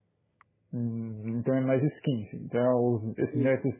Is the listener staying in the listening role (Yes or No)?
Yes